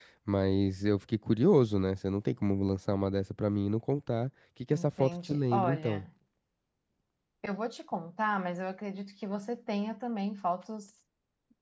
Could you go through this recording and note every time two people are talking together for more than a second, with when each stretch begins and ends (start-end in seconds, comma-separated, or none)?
4.7-6.0